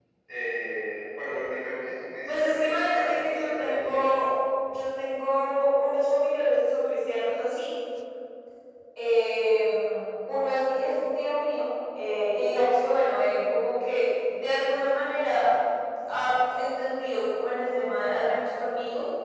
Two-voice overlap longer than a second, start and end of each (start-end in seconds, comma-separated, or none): 2.3-4.0